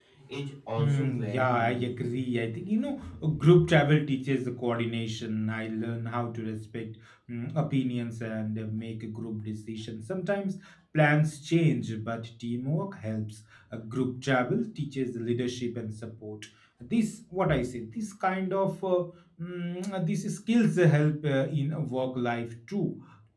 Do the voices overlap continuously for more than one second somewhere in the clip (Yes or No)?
Yes